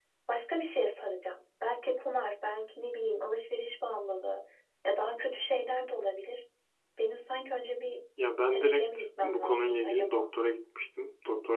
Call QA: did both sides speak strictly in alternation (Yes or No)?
No